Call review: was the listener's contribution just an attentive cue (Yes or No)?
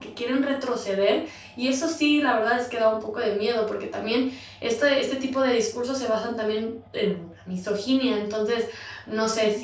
Yes